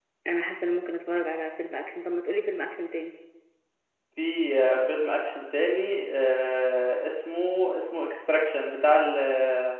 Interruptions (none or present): none